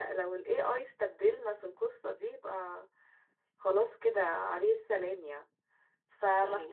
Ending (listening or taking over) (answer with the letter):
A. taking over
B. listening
B